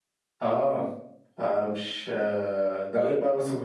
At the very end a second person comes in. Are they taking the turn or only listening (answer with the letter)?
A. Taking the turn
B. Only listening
B